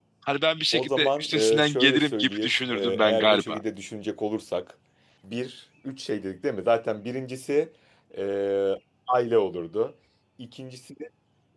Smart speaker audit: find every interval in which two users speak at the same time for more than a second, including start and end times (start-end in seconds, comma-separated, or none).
0.7-3.6